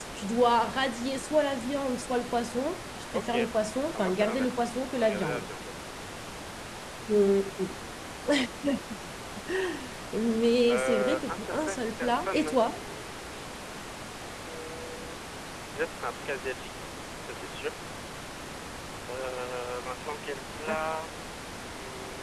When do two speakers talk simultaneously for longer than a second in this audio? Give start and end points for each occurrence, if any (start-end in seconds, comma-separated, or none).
3.9-5.5, 10.7-12.8